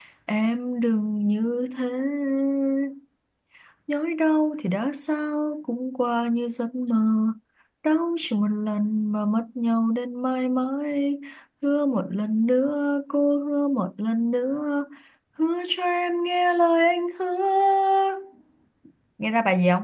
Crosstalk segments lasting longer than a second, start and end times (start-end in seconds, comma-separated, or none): none